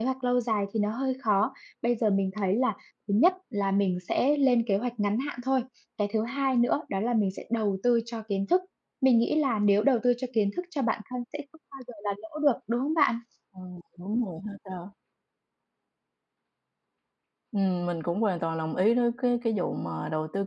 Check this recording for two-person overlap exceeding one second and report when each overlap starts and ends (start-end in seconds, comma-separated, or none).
none